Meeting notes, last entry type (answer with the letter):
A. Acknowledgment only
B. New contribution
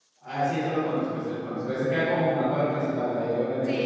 B